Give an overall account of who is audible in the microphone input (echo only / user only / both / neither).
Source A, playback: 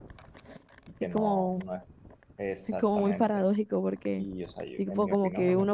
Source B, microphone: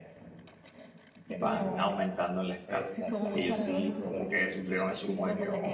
both